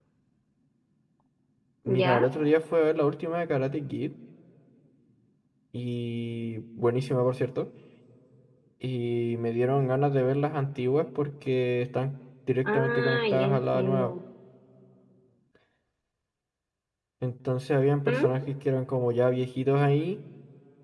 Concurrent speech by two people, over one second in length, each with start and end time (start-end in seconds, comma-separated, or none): 12.7-14.1